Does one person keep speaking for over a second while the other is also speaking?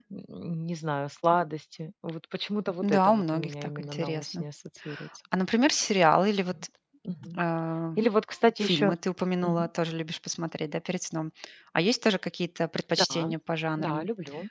Yes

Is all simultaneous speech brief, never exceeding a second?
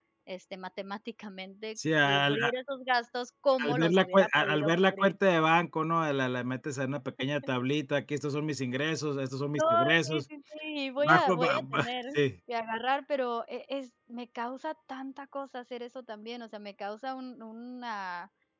No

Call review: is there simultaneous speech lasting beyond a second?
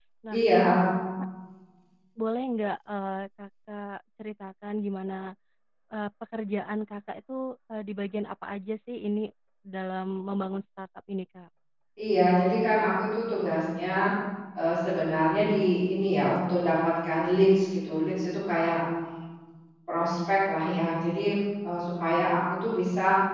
No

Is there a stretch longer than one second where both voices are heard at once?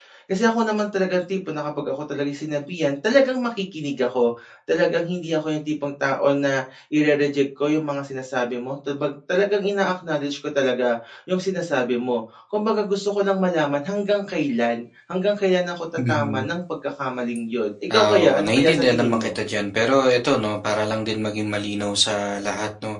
Yes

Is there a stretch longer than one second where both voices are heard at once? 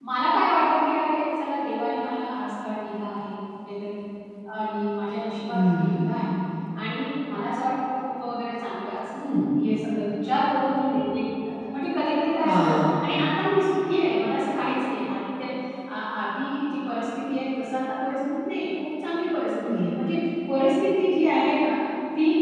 No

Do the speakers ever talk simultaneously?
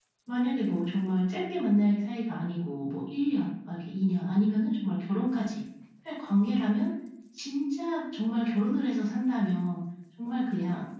No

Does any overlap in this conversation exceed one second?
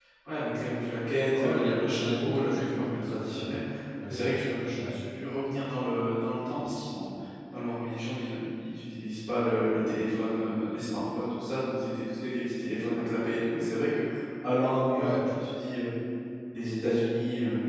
Yes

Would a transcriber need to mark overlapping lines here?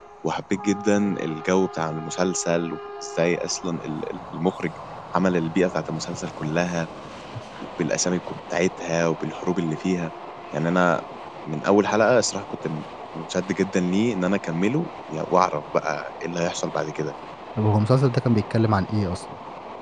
No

